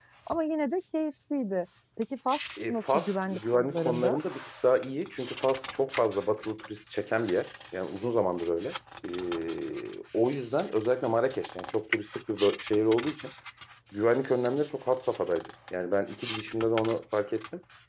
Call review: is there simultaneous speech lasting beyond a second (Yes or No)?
Yes